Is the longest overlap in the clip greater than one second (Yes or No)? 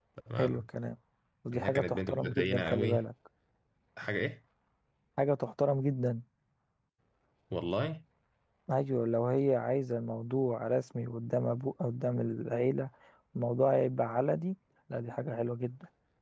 Yes